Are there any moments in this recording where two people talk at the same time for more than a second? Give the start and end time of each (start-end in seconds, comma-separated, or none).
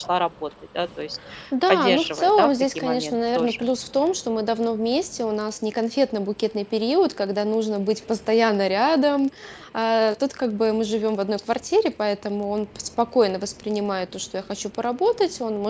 1.7-3.7